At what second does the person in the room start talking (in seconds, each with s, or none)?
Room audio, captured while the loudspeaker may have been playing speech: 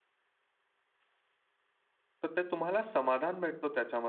2.2 s